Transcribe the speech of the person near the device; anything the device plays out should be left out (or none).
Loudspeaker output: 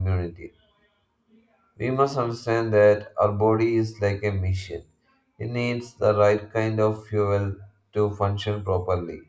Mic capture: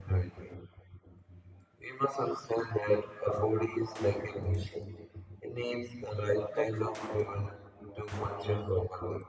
Junk food